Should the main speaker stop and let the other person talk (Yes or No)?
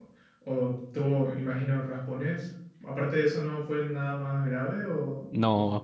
Yes